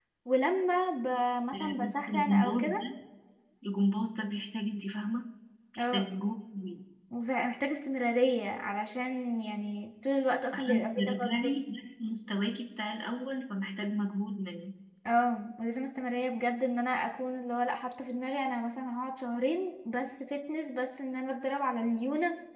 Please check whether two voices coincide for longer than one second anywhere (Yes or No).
Yes